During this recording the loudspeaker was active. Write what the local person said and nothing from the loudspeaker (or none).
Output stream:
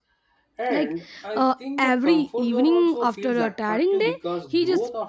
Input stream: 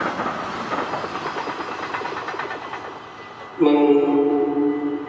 mm,